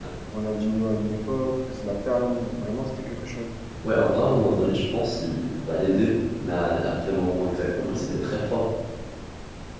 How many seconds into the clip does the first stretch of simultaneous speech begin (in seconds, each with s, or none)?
none